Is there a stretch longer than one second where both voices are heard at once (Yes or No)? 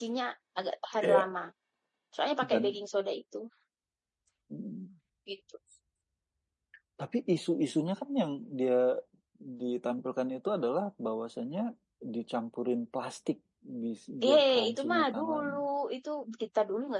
Yes